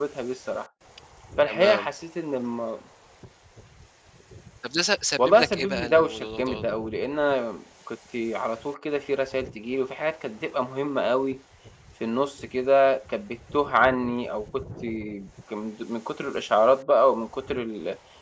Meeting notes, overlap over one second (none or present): present